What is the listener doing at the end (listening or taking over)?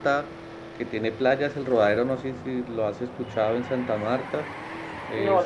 listening